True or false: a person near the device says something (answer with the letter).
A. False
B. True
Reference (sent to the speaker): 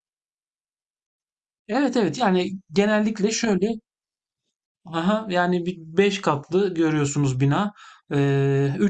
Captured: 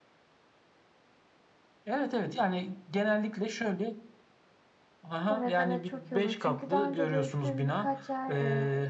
B